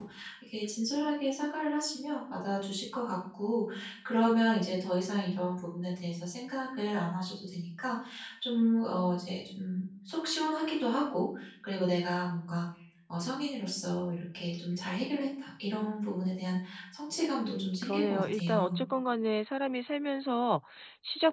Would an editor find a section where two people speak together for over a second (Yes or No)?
Yes